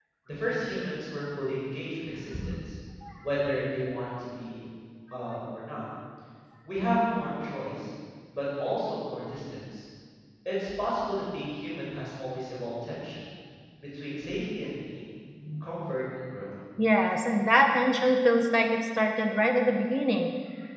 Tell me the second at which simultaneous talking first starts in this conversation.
none

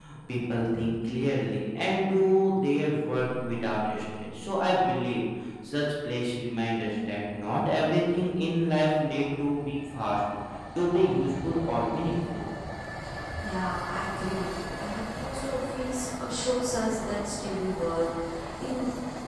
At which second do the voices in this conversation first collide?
none

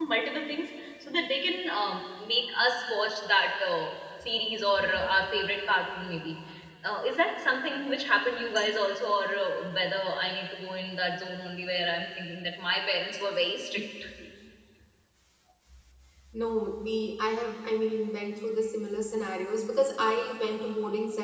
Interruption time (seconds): none

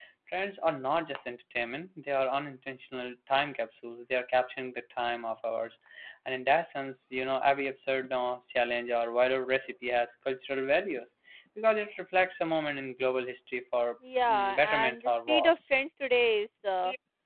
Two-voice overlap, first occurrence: 14.3 s

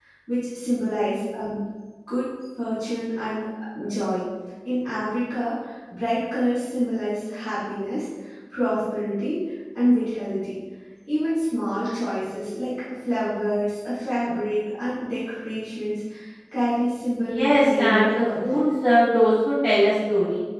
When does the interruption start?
17.2 s

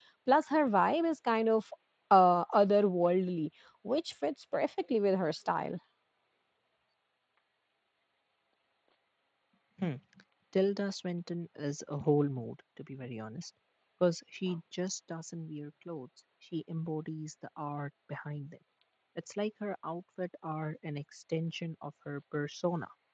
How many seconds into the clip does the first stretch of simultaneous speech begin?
none

